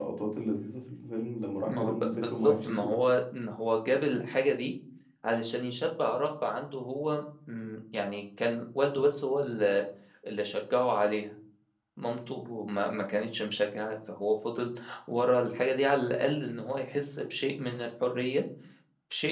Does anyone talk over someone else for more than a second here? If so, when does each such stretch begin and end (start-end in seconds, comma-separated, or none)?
1.6-3.0